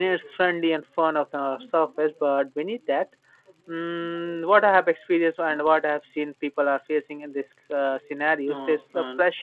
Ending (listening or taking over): listening